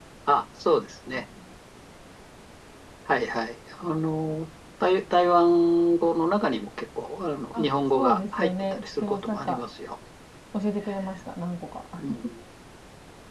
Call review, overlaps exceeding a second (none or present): present